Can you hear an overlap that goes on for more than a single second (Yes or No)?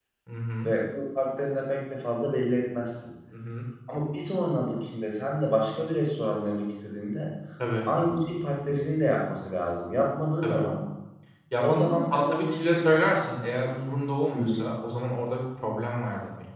Yes